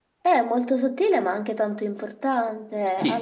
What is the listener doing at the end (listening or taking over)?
taking over